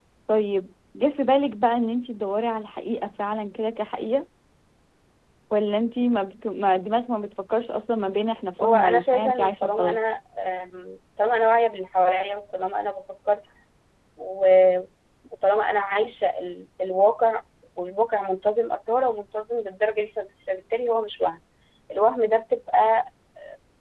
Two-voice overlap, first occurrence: 9 s

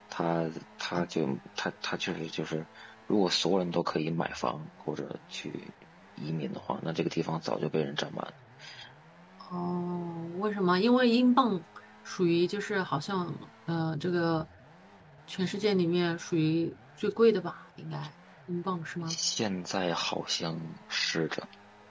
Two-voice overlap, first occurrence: none

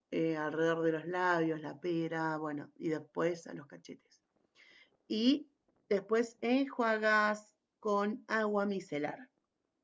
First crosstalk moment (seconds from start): none

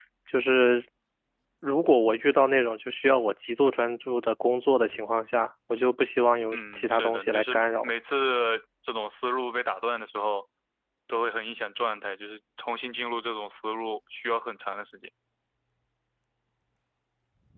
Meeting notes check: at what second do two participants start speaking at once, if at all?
7 s

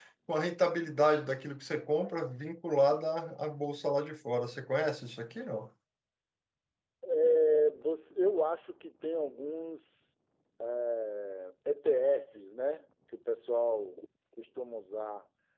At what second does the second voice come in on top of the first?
none

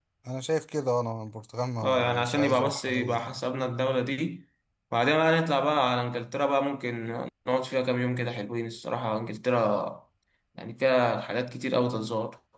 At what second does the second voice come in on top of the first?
2 s

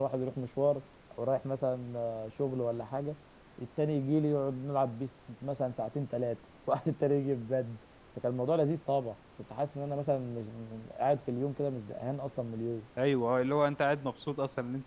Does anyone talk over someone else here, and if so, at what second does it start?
none

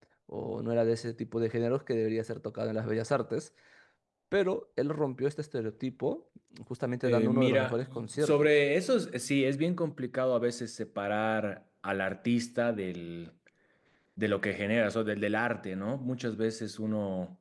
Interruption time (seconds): 7 s

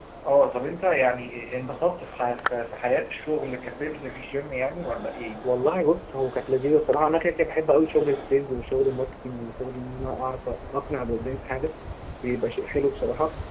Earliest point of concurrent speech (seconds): none

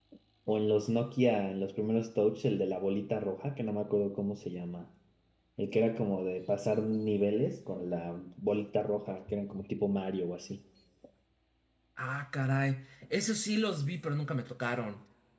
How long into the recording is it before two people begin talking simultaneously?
none

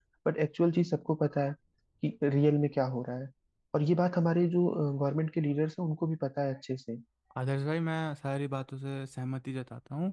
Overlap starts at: none

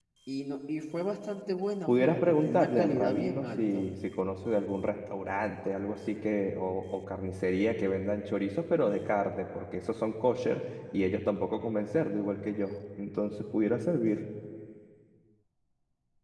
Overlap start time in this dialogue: 2 s

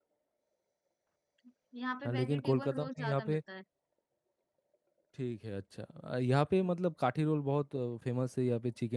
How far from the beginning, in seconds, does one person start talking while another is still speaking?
2 s

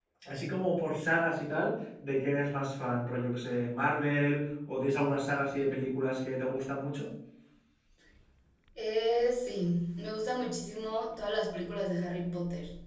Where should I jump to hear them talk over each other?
none

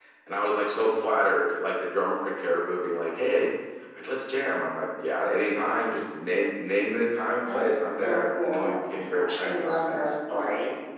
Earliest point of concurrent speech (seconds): 7 s

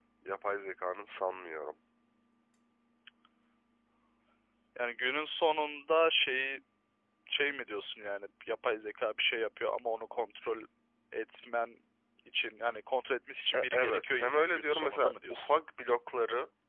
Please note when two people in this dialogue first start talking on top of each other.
14 s

